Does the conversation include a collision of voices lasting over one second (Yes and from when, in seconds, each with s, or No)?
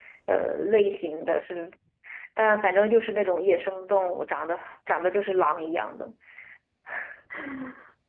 No